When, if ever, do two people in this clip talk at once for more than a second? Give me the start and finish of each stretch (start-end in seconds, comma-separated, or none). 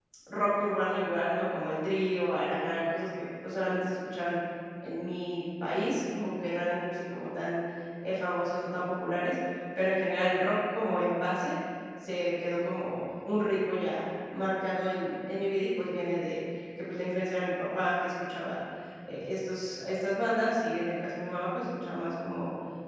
none